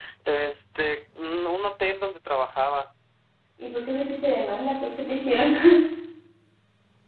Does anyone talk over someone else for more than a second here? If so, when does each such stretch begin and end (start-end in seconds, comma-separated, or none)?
none